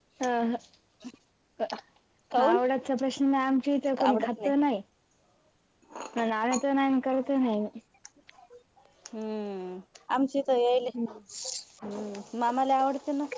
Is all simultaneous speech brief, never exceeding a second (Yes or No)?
Yes